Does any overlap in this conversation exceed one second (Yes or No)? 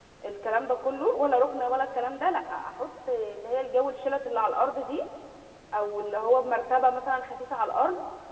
No